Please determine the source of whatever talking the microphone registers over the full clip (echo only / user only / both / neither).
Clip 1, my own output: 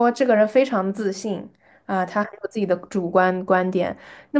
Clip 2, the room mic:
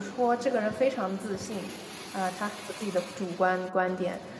echo only